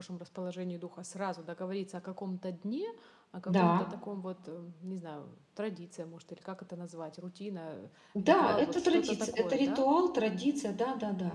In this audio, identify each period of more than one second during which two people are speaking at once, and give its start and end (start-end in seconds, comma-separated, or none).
8.2-9.8